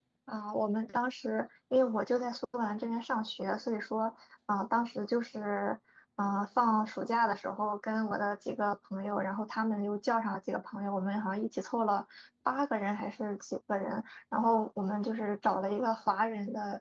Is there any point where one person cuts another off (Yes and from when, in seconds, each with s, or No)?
No